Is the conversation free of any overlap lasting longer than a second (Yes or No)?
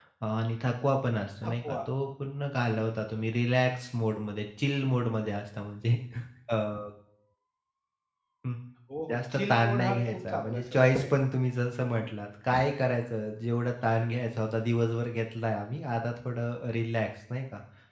No